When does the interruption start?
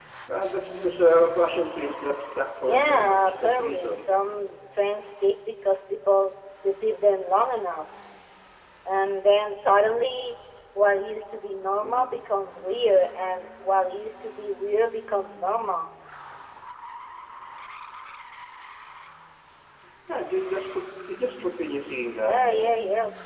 3 s

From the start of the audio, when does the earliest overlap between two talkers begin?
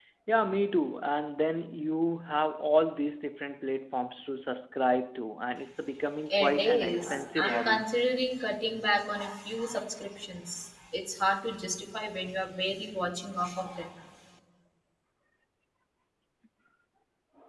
6 s

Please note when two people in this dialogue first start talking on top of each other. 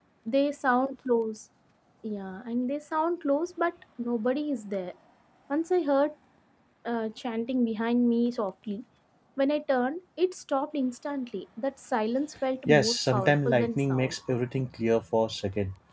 13 s

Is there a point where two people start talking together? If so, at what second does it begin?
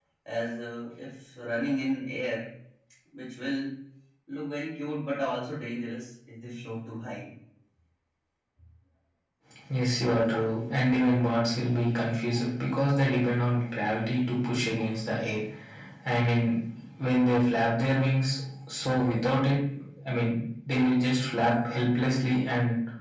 none

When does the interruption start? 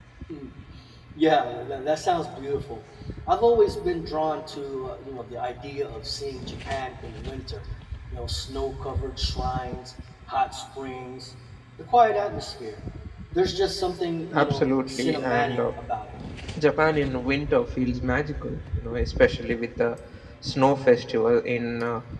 14 s

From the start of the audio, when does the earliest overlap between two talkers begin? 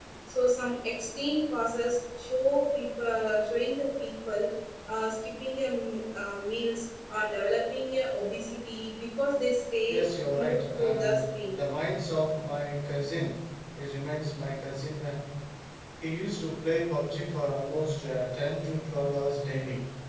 10 s

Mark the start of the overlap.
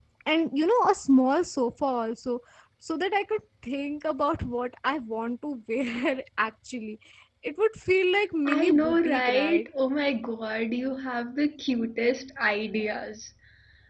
8 s

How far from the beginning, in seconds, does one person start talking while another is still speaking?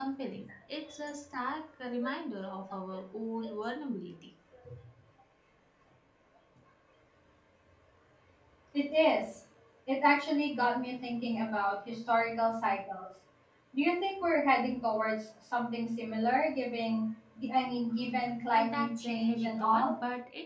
19 s

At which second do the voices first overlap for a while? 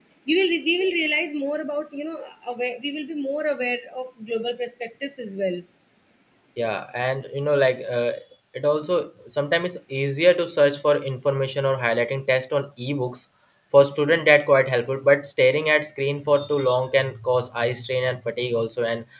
none

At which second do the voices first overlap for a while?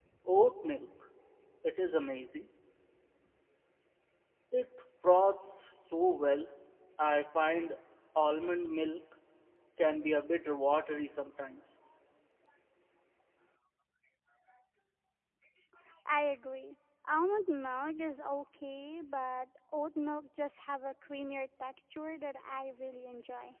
none

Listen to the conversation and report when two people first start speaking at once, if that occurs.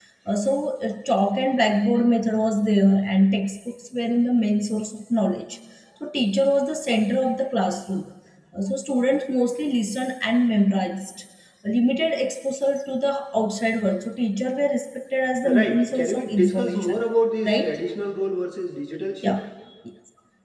15 s

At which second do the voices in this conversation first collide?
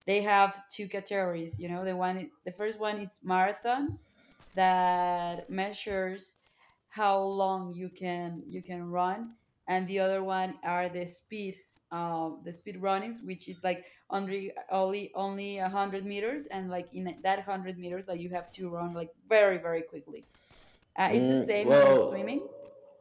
21 s

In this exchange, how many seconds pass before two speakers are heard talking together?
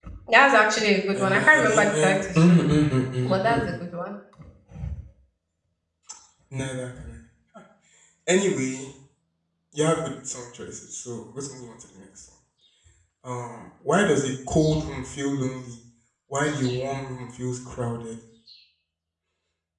1 s

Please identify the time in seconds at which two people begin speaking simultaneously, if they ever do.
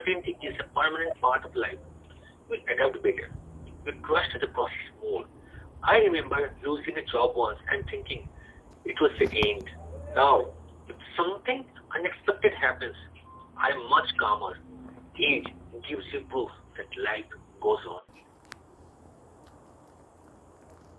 none

